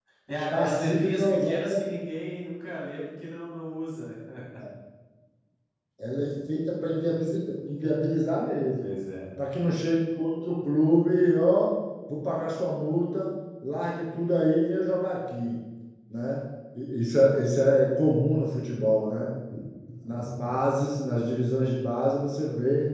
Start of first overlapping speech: 0.5 s

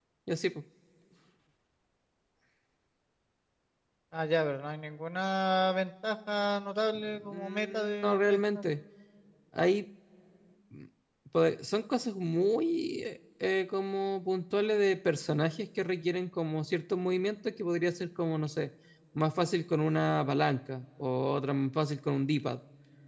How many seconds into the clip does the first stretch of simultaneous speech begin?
7.0 s

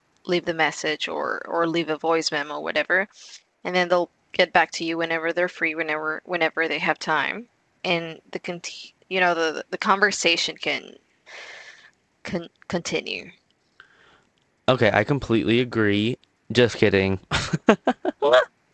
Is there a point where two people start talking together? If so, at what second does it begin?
none

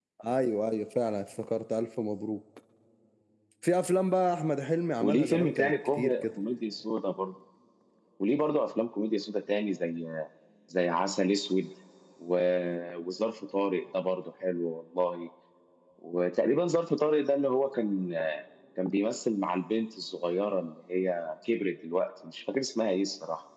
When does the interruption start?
5.0 s

